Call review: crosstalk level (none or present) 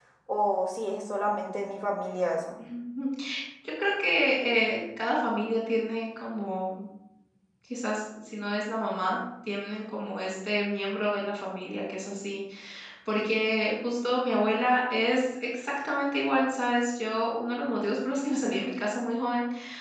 none